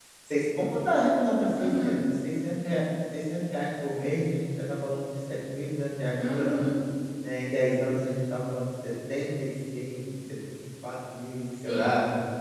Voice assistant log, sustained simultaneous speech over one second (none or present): none